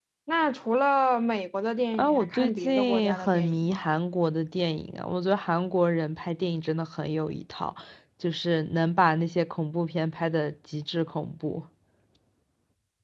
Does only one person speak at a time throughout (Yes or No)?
No